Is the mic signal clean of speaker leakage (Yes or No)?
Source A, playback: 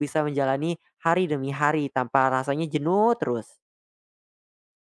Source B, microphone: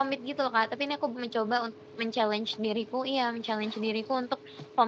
Yes